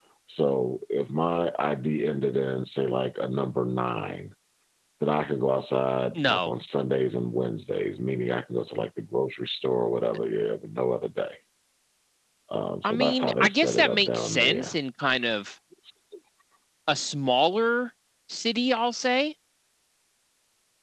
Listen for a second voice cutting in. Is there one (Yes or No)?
Yes